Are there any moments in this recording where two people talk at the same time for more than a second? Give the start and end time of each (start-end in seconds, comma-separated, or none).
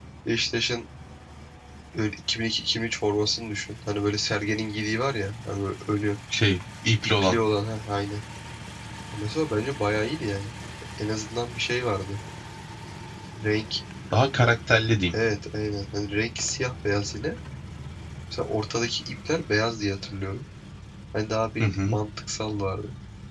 none